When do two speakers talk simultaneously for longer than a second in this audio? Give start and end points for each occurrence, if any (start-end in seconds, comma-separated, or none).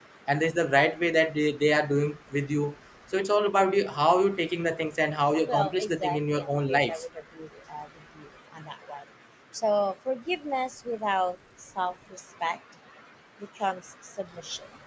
5.5-7.0